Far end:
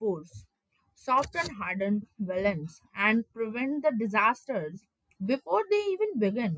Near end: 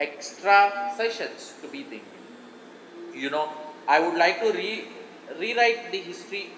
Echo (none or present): none